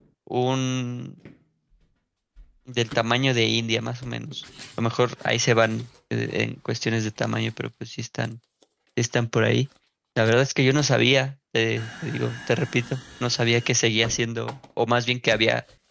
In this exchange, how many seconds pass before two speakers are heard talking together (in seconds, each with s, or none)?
none